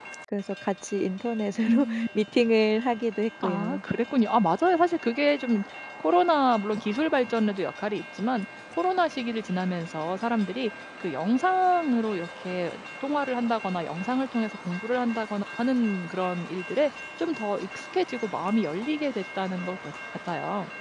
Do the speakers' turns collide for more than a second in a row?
No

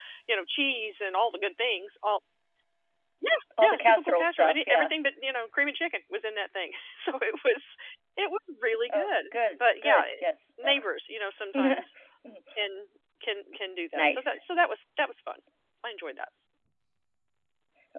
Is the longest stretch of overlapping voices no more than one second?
No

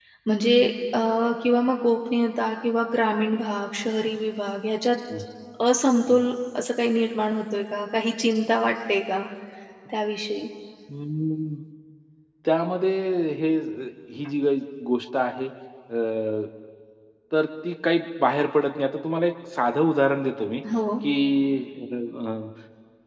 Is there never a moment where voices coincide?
Yes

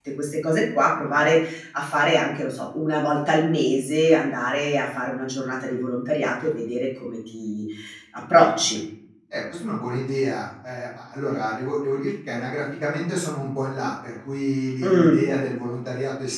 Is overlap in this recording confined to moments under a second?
Yes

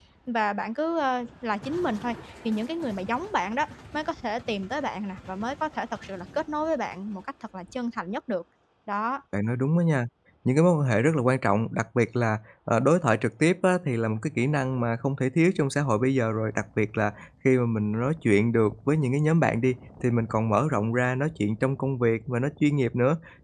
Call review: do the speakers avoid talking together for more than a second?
Yes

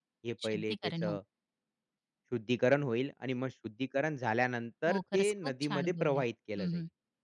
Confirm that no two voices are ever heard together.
No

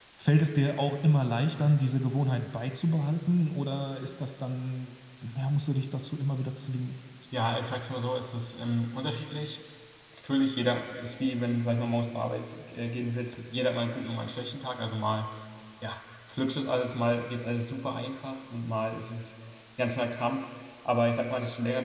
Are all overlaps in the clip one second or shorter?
Yes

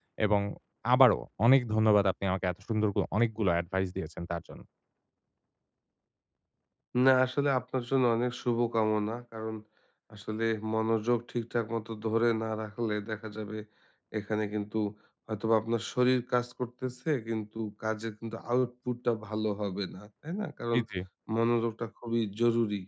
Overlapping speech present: No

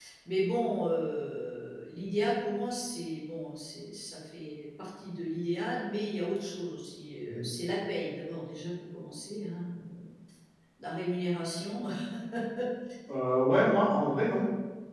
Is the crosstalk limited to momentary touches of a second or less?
Yes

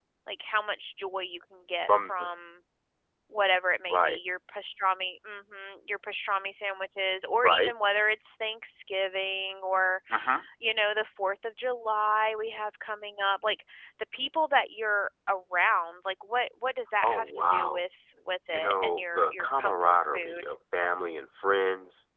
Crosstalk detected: Yes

